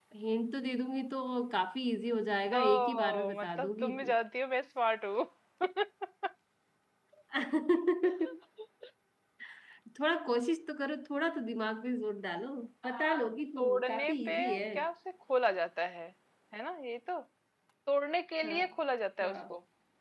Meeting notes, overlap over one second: present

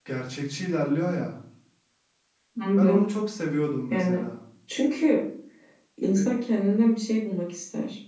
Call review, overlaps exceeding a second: none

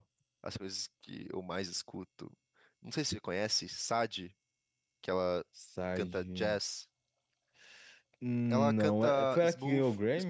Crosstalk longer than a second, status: present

